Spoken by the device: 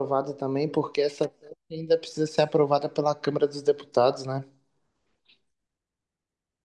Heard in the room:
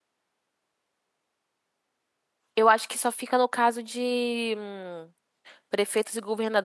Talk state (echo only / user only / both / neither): user only